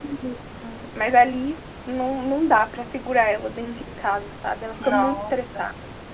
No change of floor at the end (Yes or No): No